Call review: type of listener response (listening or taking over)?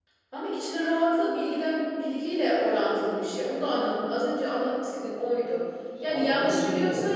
taking over